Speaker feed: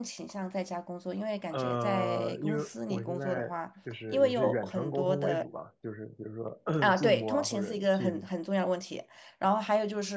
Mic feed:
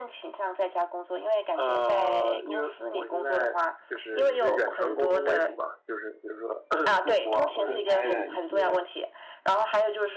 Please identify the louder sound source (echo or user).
echo